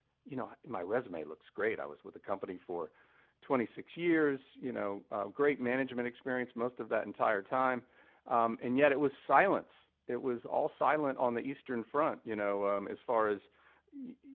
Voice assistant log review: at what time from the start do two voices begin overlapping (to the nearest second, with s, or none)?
none